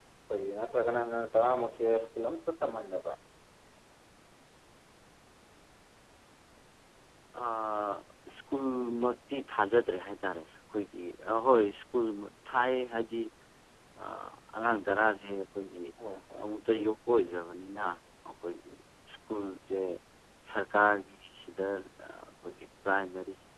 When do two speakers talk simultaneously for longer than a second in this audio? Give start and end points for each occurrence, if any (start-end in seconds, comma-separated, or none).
none